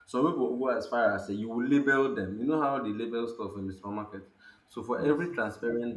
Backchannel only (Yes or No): Yes